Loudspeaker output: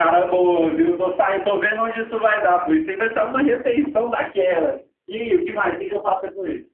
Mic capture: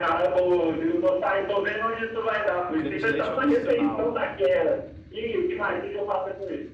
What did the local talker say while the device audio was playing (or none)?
O creme de leite é opcional.